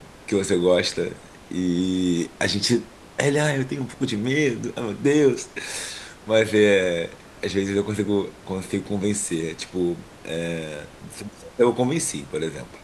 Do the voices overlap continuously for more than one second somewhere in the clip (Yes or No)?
No